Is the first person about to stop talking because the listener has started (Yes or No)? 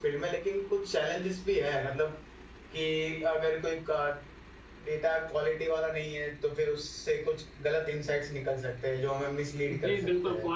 Yes